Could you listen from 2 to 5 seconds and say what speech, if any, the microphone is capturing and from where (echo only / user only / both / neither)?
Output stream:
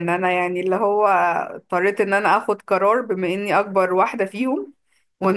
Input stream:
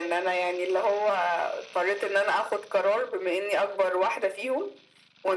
echo only